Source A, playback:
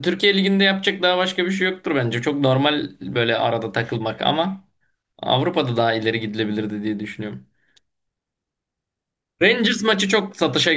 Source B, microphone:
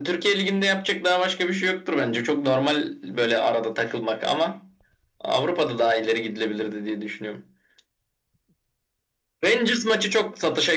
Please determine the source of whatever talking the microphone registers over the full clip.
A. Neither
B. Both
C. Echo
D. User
C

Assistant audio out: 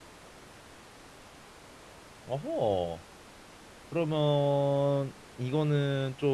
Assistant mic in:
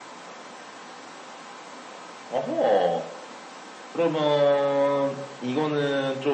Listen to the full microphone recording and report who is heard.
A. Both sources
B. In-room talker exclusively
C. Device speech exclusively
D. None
C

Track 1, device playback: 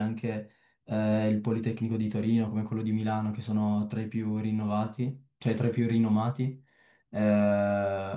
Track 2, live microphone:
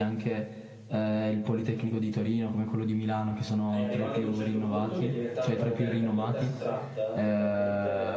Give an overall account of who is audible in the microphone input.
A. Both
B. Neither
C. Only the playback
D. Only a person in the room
A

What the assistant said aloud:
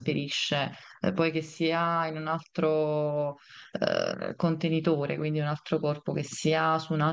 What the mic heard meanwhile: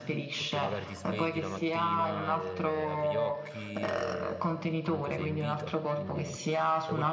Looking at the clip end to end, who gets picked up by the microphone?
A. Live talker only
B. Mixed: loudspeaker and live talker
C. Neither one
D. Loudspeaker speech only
B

